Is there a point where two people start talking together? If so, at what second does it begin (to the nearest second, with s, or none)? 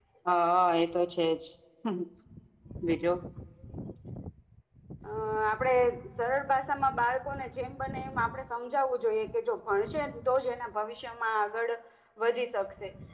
none